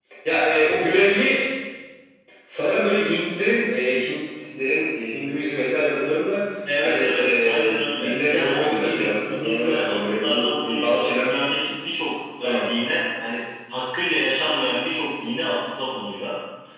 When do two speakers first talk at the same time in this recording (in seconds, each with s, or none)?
6.8 s